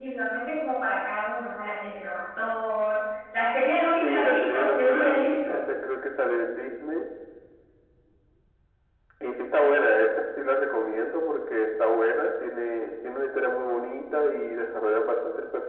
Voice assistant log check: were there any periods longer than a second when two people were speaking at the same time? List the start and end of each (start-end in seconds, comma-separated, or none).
4.0-5.6